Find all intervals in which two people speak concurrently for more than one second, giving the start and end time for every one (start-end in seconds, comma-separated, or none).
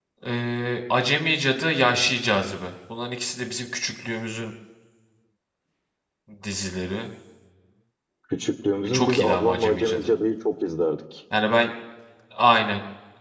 8.8-10.1